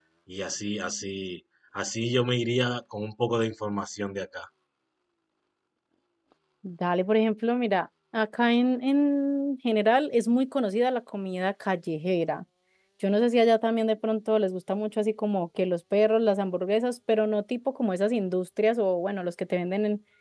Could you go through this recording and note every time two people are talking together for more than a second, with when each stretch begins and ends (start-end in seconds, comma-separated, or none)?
none